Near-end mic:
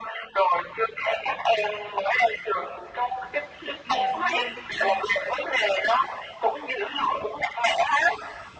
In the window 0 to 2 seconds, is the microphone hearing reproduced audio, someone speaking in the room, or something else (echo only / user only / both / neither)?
echo only